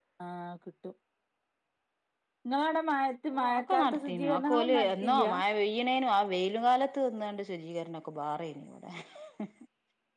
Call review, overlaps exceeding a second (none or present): present